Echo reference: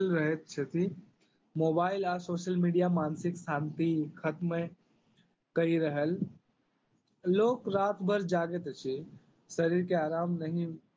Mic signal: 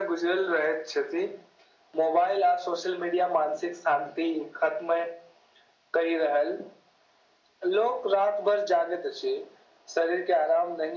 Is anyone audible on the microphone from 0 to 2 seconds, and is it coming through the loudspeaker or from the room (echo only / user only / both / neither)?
echo only